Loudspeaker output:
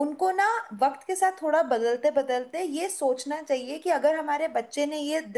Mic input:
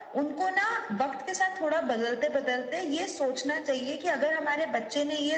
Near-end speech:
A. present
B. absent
B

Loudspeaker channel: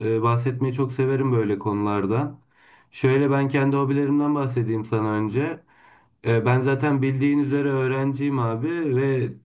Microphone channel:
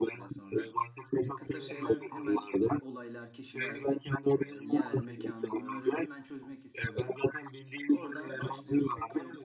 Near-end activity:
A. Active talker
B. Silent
A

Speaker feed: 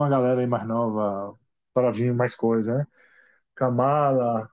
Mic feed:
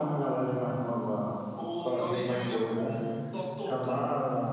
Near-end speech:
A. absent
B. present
B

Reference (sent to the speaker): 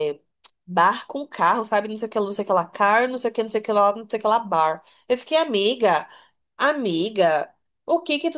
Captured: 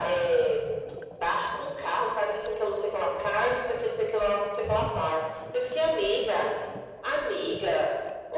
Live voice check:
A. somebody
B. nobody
B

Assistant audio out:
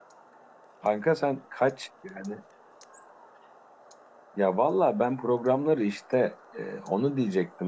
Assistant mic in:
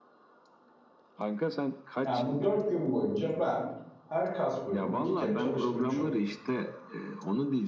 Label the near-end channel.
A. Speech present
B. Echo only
A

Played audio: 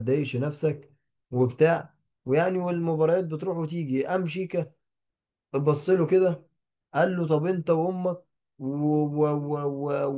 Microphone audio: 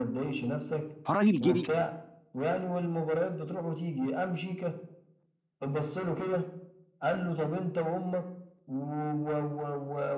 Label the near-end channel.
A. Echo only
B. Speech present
B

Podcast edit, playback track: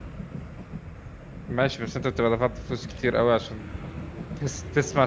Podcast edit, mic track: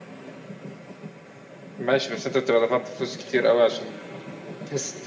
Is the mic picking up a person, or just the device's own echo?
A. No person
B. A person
A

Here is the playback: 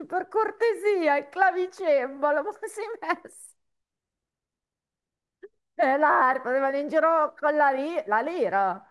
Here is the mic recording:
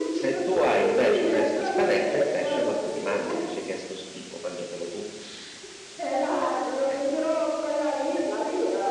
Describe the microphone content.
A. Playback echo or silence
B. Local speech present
B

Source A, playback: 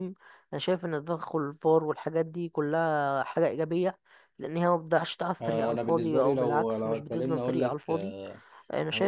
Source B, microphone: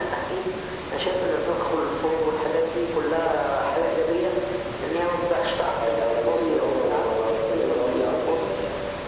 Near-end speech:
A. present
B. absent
B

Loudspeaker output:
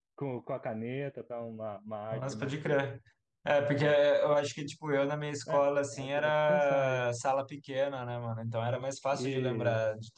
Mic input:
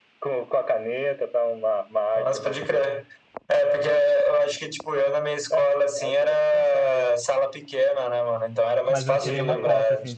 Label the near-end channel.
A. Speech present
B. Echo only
A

